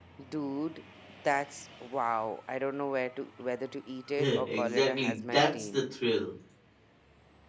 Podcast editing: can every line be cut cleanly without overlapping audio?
No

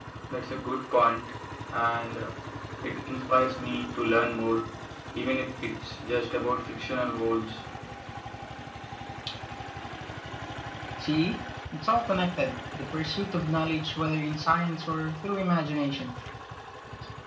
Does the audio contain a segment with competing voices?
No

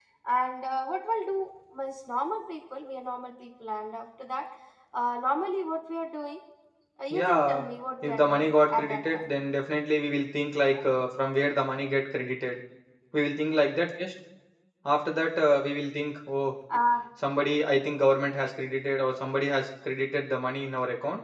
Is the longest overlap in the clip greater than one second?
Yes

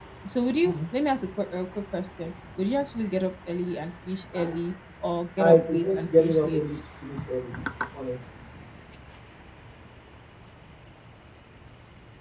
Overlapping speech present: Yes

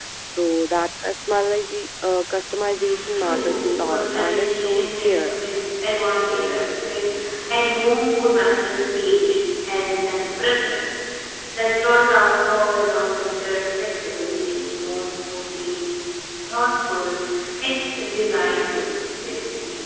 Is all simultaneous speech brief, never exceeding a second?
No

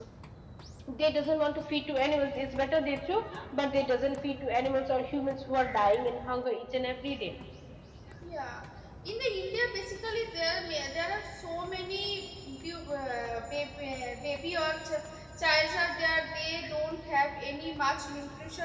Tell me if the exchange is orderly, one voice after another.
Yes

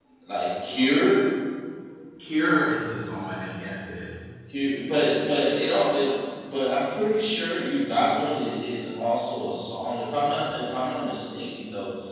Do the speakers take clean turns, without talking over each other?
Yes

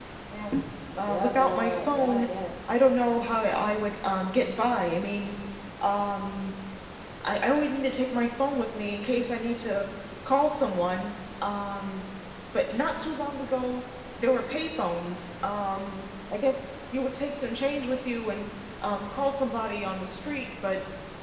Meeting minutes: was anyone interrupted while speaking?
Yes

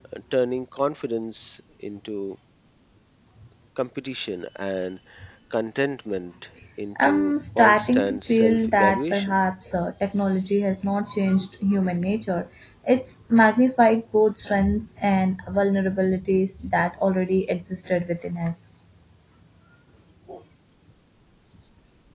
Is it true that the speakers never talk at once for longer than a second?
No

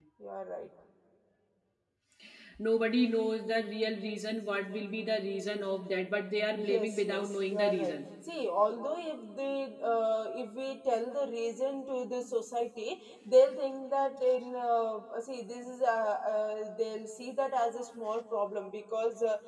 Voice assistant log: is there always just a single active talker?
No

